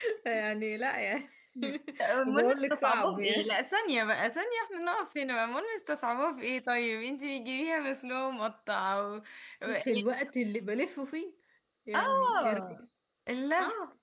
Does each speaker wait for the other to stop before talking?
No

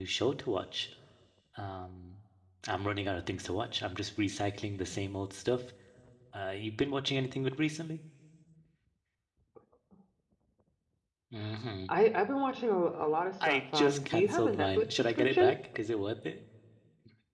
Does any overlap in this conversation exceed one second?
Yes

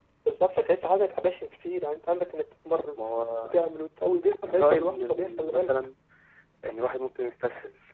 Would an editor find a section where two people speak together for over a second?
Yes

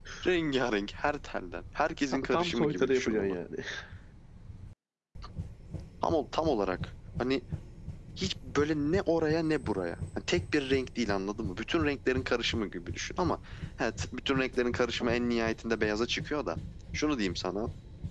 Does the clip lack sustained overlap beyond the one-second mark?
No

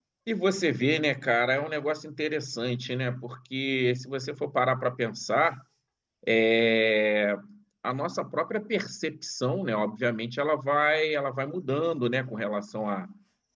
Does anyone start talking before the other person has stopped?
No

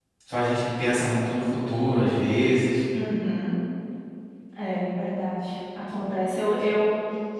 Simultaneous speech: No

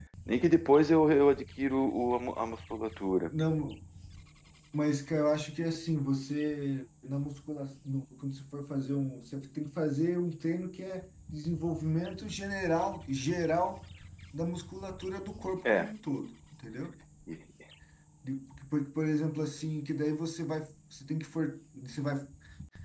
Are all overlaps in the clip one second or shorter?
Yes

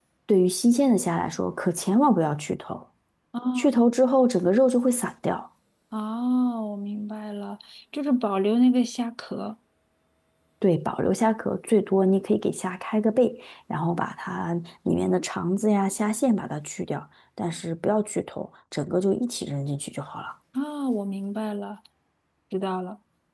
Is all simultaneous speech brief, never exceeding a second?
Yes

